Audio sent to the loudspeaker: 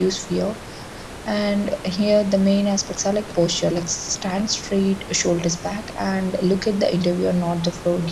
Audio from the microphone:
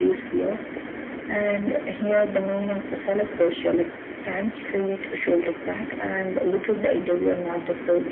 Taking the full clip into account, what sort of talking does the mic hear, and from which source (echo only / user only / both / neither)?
echo only